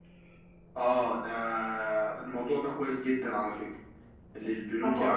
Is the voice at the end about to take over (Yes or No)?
No